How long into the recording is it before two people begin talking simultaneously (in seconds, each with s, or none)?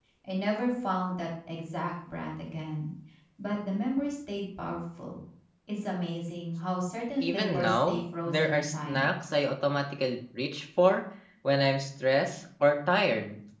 7.2 s